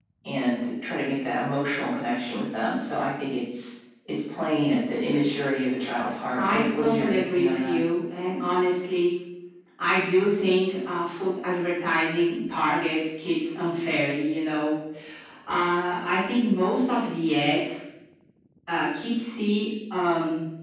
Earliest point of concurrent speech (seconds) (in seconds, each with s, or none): 6.4 s